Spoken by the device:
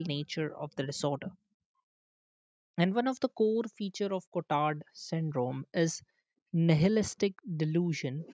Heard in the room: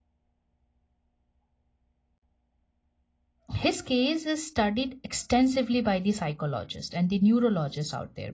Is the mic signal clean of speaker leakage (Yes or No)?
Yes